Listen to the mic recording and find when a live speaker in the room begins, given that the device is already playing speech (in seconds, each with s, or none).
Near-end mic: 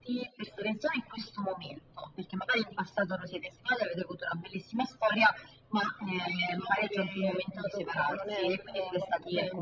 none